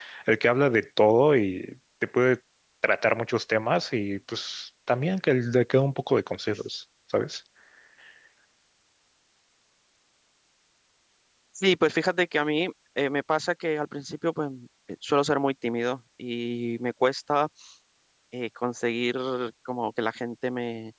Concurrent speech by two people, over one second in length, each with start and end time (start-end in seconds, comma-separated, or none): none